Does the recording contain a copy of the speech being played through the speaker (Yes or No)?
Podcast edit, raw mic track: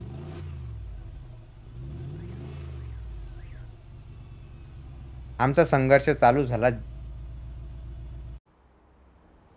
No